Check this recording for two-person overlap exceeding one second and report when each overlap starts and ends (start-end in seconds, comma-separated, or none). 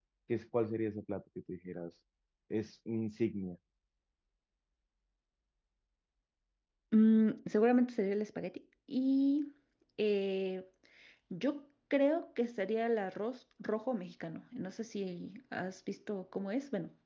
none